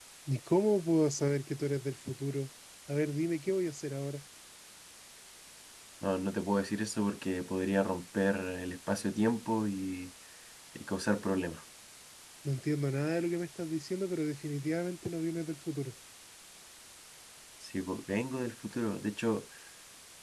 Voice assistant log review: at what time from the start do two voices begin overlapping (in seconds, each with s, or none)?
none